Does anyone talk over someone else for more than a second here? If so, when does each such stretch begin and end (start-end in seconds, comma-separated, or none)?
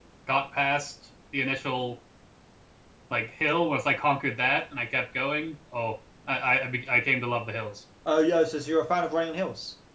none